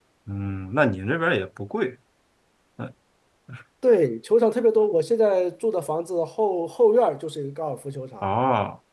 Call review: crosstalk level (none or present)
none